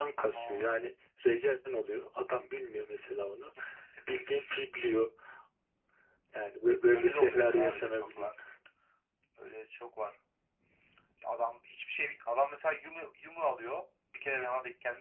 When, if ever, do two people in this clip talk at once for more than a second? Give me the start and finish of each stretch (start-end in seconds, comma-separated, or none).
6.9-8.3